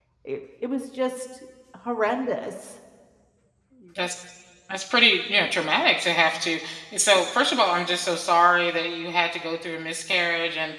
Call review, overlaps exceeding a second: none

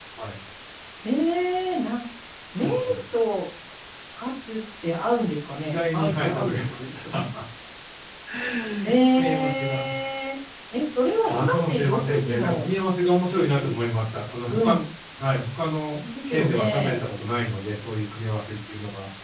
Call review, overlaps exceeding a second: present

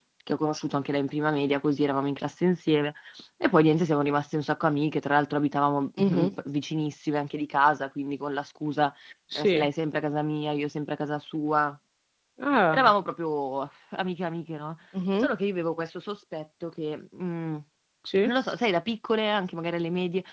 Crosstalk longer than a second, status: none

